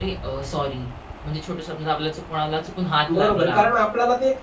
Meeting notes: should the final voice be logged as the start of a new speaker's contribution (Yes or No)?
Yes